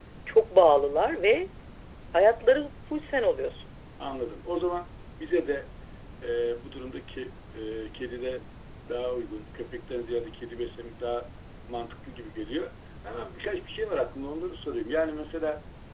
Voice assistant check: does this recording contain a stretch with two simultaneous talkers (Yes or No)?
No